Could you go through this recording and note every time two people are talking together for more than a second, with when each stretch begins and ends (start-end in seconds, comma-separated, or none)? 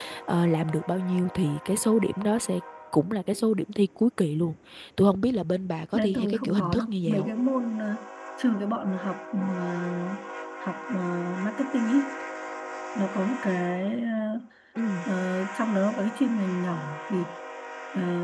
5.9-7.3